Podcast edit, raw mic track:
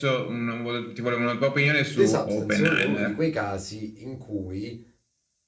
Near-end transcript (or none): The Substance secondo me è uno di quei casi in cui